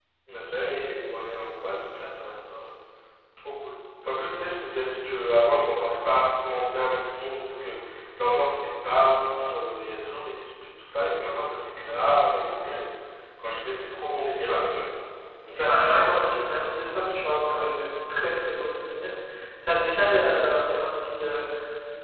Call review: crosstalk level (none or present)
present